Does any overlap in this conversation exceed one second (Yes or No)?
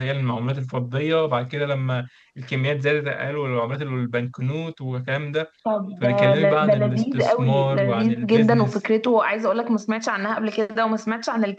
Yes